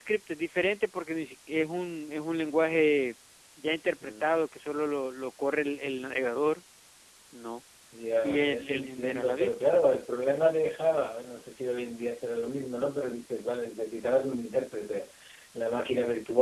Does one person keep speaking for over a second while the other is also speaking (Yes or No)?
Yes